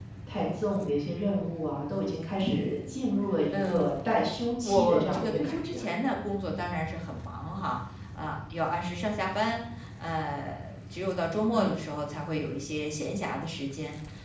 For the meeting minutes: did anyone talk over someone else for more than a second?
Yes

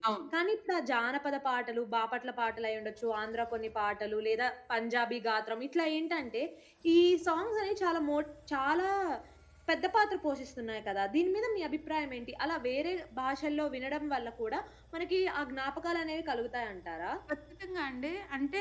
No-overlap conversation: Yes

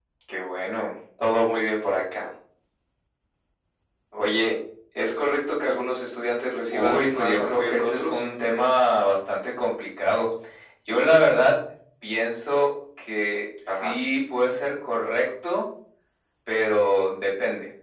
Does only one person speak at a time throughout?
No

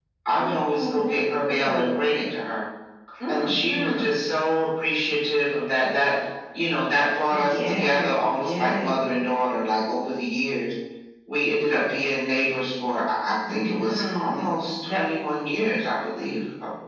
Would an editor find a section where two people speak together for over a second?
Yes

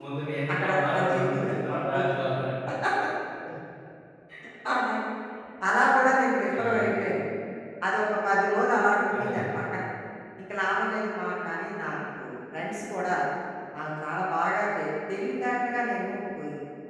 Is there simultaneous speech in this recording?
Yes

